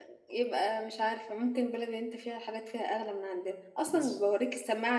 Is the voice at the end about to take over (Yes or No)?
No